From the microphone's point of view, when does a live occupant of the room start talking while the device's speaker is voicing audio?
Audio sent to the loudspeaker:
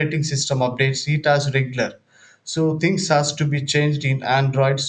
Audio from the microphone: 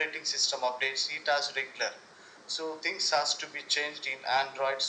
none

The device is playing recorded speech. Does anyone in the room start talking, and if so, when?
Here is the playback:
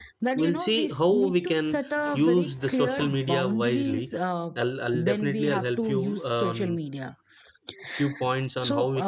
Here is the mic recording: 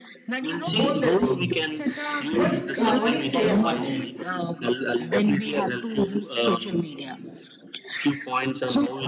0.7 s

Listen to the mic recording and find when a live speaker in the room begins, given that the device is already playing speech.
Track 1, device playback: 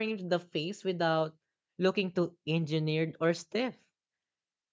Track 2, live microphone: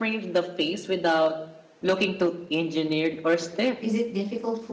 3.8 s

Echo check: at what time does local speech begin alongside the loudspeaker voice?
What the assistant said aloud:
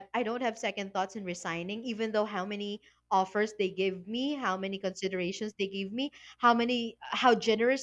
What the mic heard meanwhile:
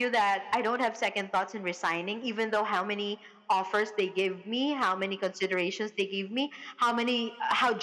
none

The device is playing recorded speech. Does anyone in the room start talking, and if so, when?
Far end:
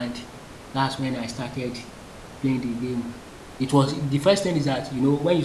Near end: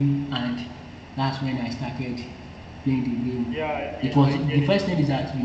3.5 s

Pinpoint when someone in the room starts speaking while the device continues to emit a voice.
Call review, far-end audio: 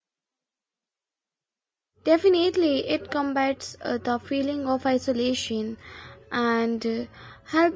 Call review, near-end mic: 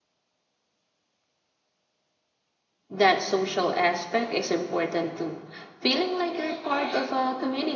2.9 s

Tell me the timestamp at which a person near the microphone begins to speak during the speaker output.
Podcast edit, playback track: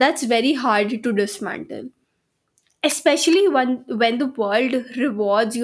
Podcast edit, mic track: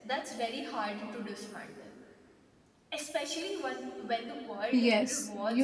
4.7 s

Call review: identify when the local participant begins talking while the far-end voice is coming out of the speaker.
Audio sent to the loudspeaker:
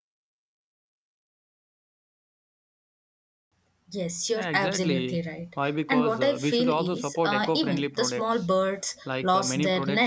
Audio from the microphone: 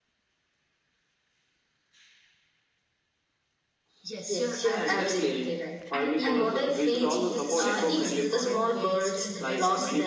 4.0 s

